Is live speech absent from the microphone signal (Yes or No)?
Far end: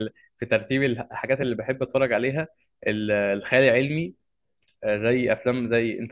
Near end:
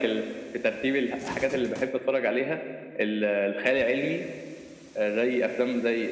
Yes